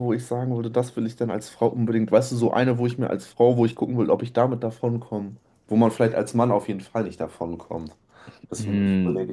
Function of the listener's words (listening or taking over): taking over